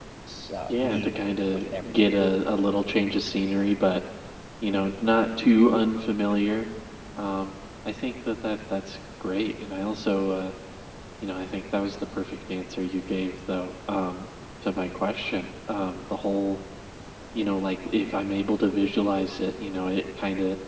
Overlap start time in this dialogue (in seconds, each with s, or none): 0.7 s